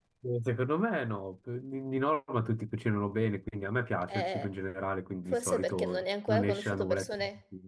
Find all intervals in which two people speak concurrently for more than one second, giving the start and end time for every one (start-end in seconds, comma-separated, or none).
5.3-7.2